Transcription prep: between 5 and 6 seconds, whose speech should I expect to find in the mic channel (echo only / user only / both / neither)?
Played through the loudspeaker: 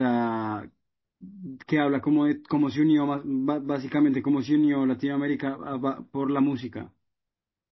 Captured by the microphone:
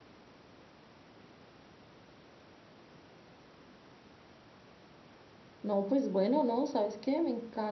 user only